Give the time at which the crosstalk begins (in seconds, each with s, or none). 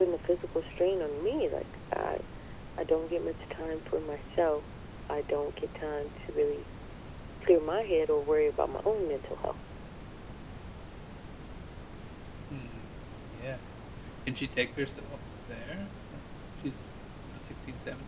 none